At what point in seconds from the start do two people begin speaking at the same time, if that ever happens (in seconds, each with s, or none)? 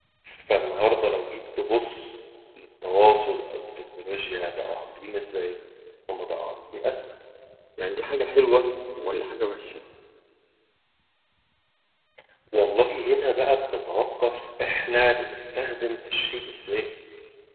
none